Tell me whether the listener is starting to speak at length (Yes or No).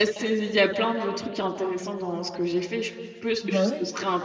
No